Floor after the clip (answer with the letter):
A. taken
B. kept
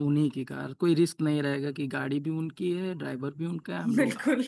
B